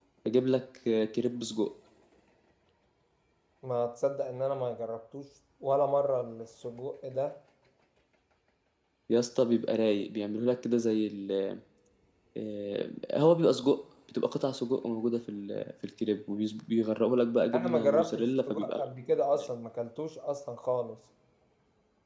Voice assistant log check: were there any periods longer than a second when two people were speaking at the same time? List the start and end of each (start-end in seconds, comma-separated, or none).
17.5-19.5